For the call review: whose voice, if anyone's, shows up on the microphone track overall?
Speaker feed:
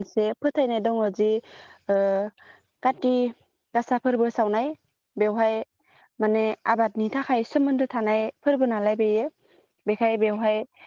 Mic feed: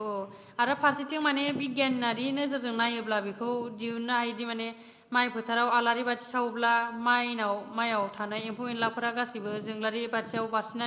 user only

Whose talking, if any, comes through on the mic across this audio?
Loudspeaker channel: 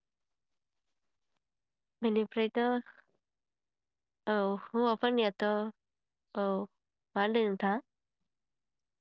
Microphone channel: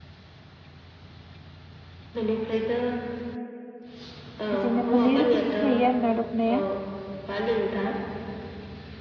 both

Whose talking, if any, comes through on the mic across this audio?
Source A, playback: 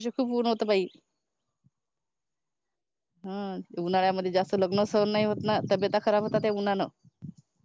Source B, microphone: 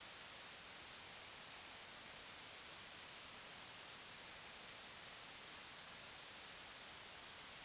neither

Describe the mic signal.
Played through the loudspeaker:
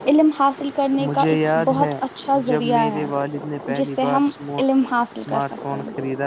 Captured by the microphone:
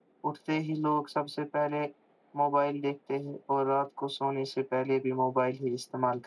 user only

